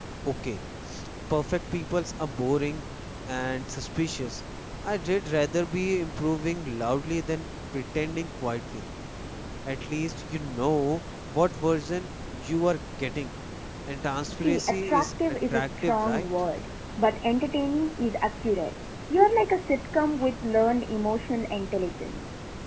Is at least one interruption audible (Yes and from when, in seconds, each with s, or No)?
Yes, from 14.4 s